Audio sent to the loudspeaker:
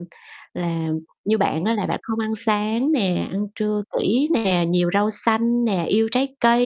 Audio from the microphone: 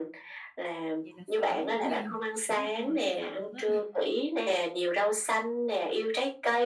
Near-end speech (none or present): present